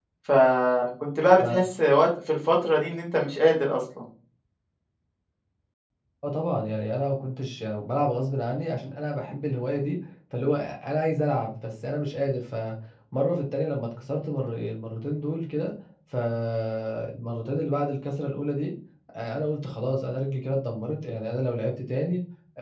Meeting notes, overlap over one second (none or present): none